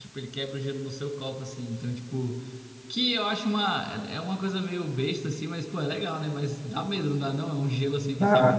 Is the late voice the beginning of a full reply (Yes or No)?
Yes